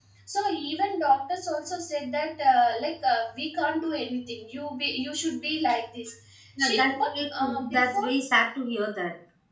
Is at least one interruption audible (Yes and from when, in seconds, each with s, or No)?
Yes, from 6.6 s